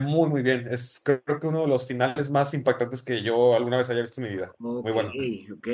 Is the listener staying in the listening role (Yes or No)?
No